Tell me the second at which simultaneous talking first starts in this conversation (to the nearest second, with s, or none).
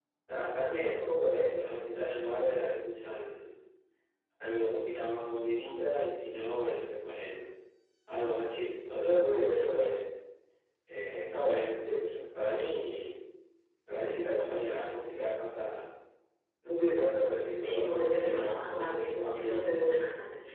18 s